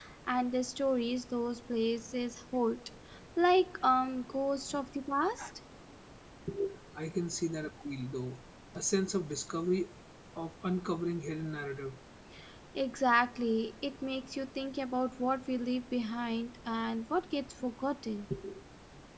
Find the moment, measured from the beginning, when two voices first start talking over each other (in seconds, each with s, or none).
none